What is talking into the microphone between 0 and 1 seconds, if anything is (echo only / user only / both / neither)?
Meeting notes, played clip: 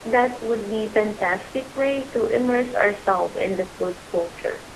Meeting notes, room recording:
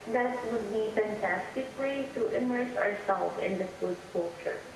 echo only